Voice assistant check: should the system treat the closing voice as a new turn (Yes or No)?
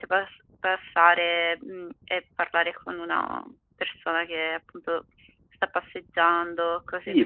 Yes